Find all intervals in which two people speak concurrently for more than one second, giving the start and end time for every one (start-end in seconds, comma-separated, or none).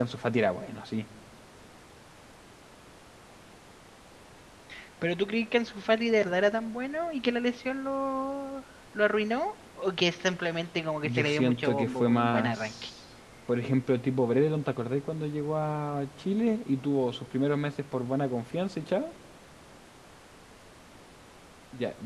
11.0-12.9